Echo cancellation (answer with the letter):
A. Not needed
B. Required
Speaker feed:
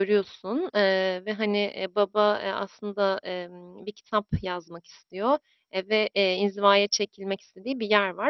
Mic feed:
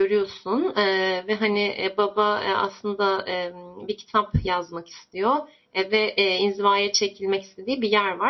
B